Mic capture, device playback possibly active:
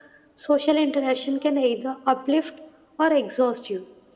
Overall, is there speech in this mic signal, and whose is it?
echo only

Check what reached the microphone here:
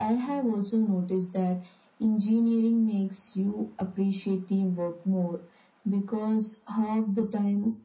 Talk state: echo only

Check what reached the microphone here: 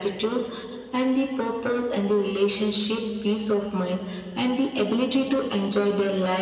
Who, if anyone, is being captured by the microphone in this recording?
echo only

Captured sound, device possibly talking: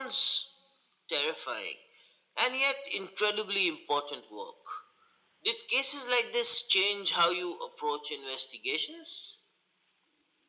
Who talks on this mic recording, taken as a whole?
echo only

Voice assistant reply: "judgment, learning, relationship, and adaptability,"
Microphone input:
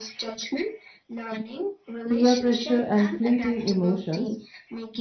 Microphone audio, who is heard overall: both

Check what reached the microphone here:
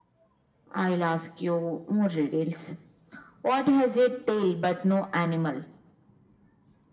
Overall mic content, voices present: echo only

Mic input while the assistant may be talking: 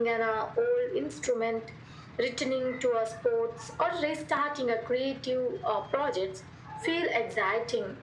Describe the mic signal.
echo only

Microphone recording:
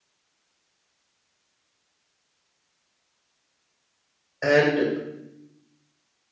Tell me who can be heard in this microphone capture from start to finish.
user only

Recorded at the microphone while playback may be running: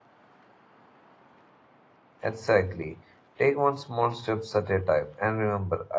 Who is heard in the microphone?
user only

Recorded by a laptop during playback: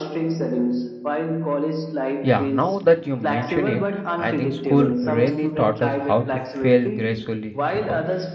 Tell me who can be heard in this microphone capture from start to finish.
both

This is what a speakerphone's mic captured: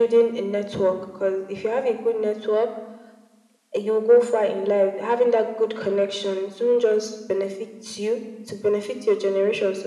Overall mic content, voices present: echo only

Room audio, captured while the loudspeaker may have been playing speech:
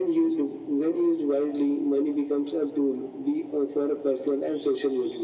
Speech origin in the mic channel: echo only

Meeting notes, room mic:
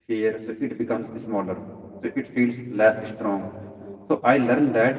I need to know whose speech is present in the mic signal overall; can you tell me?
user only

